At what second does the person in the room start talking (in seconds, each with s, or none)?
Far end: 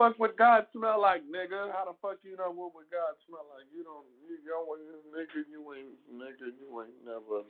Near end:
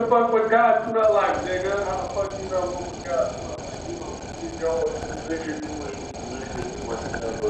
none